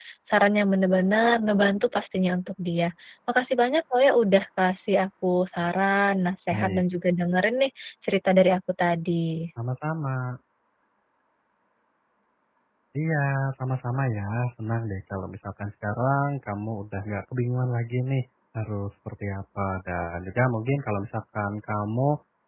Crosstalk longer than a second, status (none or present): none